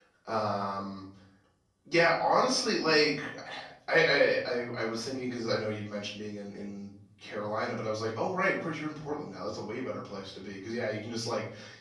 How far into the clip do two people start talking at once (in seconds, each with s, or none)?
none